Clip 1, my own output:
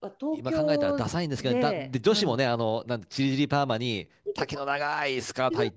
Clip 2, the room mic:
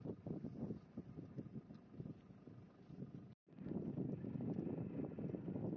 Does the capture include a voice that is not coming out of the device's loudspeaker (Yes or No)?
No